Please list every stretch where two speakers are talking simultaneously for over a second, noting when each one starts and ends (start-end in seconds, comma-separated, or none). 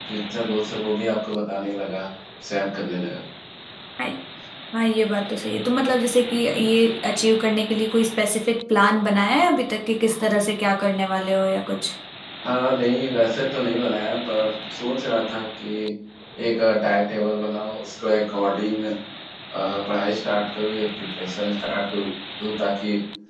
none